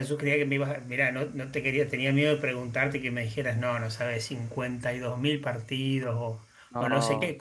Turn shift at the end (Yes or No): No